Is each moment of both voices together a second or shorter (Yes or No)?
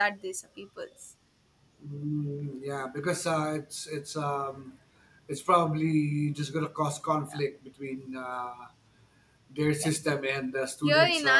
Yes